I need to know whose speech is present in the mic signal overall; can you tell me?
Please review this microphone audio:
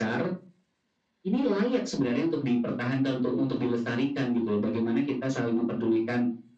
echo only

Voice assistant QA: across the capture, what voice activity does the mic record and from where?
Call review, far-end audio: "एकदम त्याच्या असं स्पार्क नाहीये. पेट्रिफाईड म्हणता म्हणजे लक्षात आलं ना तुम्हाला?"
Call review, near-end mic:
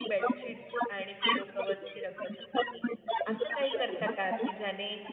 both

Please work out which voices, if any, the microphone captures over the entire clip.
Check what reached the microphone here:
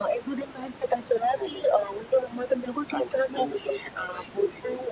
echo only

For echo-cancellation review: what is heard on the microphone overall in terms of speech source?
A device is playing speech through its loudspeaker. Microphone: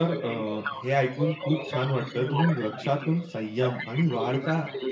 both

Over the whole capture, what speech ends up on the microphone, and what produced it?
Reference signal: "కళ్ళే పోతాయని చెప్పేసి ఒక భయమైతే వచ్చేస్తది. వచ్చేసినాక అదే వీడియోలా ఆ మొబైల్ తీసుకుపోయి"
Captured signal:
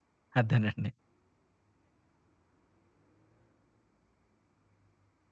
user only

